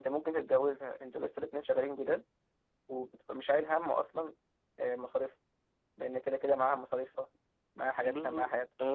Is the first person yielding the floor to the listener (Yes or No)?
Yes